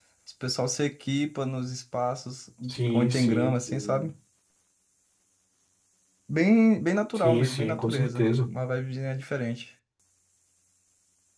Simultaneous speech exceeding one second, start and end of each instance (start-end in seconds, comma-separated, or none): 2.7-4.1, 7.2-8.5